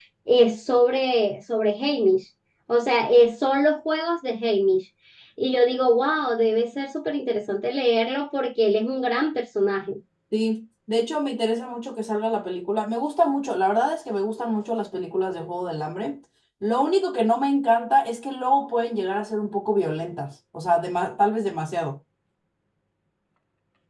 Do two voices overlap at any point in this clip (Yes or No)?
No